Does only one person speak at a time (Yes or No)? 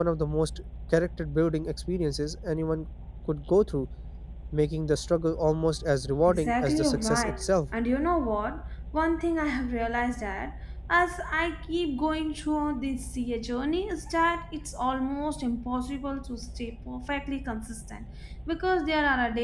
No